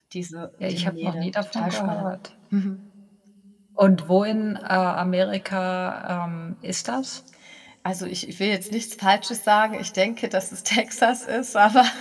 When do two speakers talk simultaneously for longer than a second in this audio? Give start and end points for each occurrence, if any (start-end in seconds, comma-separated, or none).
0.6-2.2